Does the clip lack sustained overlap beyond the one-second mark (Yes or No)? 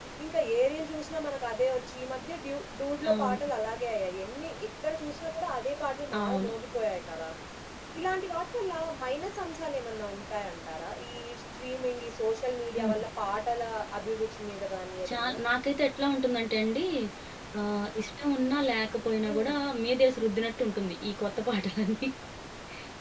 Yes